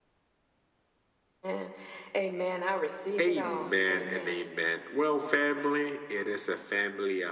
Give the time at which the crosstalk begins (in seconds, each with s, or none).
3.2 s